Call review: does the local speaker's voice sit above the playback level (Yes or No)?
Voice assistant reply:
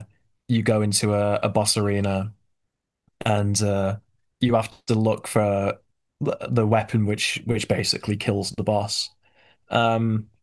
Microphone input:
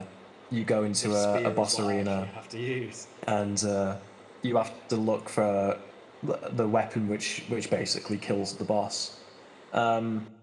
No